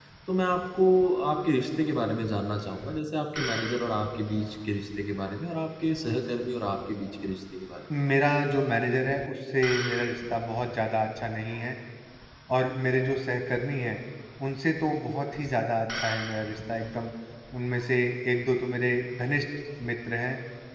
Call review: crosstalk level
none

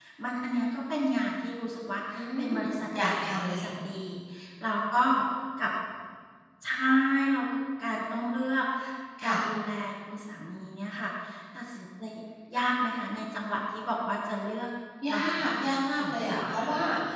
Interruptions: present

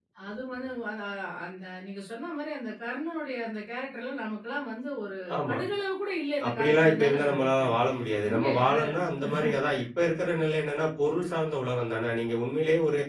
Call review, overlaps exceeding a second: present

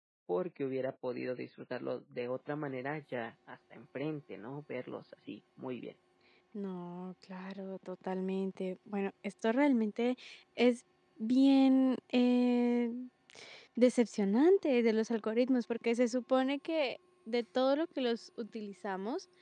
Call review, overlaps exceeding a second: none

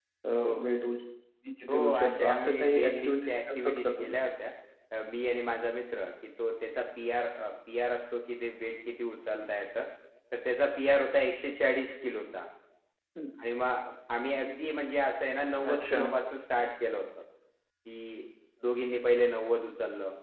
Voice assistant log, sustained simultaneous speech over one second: present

